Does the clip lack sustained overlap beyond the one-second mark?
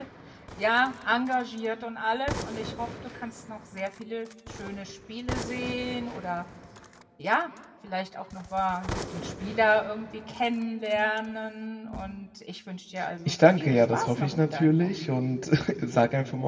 No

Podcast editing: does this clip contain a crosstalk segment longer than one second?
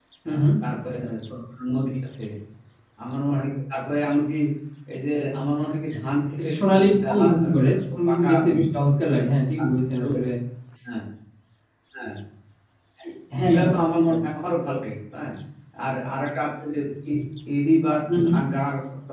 Yes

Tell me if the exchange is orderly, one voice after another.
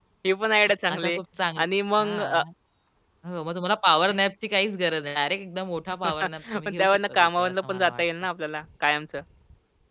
No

